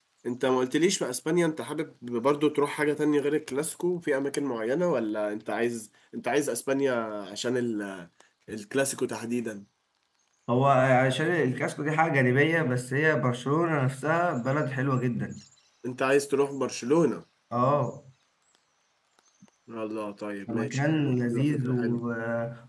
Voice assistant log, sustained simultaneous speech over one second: present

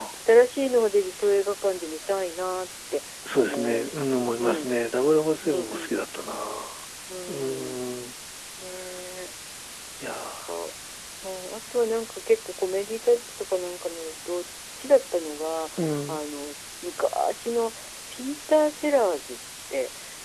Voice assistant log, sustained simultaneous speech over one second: present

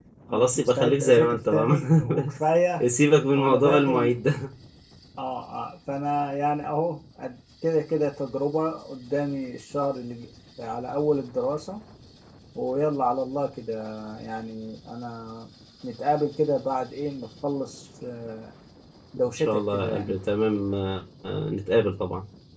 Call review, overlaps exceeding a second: present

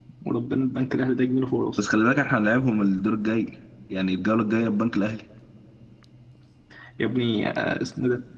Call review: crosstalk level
none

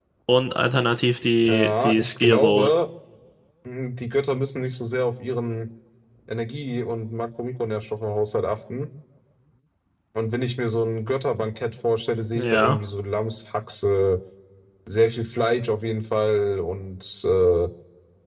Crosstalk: present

